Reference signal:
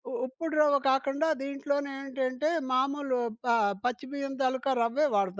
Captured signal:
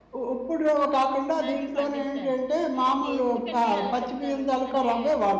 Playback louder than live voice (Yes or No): Yes